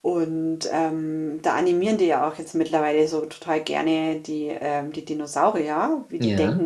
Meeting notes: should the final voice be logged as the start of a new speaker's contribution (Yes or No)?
No